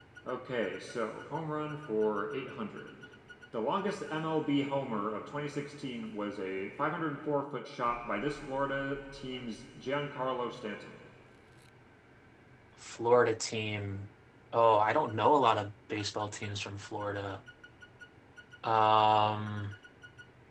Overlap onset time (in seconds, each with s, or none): none